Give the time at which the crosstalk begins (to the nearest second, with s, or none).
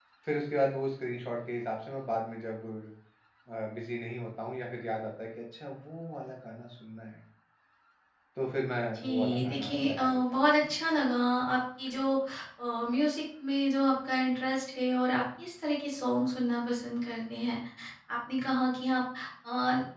9 s